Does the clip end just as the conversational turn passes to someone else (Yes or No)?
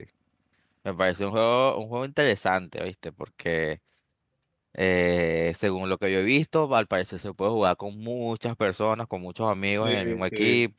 Yes